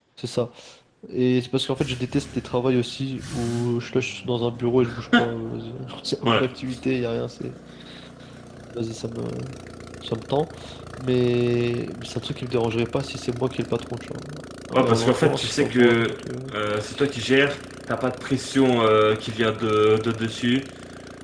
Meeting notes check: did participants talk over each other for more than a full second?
Yes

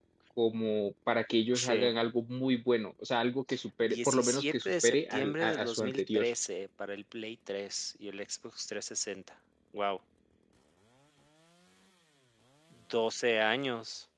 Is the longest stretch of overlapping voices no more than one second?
No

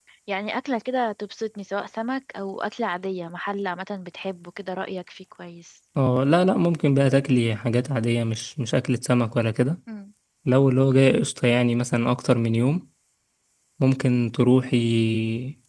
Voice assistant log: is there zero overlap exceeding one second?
Yes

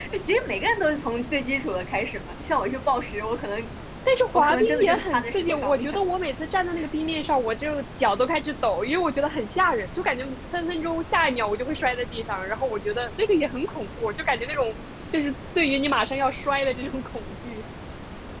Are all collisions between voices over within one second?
No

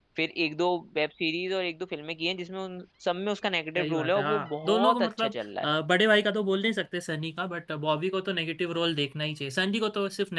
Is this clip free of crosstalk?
No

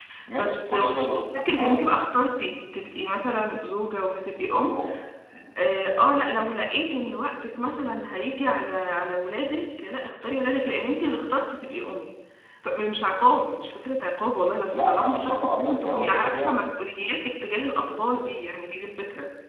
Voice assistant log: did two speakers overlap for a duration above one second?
Yes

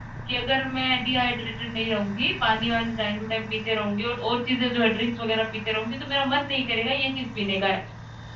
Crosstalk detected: No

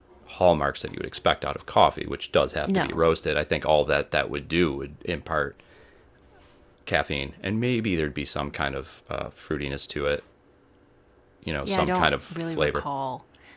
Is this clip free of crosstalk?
No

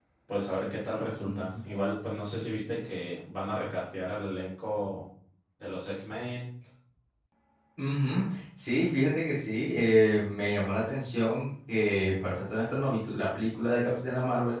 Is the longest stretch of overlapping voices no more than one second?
Yes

